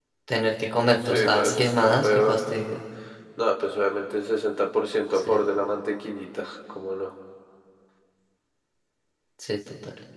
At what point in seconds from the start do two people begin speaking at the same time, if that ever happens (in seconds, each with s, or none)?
1.1 s